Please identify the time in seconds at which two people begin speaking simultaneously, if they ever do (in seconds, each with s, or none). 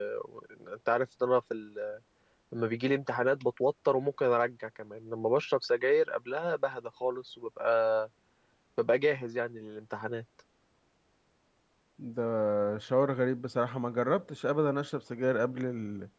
none